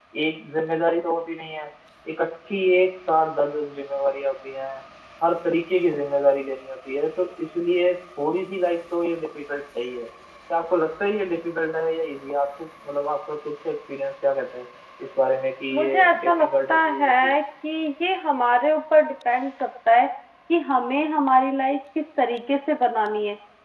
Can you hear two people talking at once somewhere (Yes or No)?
Yes